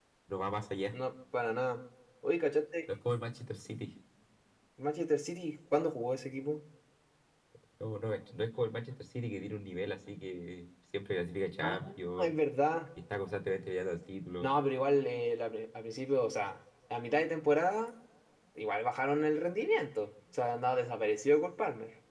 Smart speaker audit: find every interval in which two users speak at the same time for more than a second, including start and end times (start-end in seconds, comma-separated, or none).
none